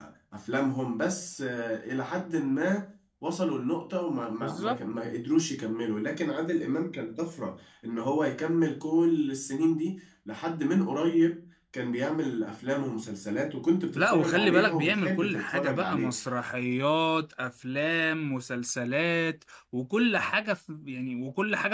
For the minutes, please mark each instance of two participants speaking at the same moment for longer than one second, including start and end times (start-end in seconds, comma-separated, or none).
13.9-16.1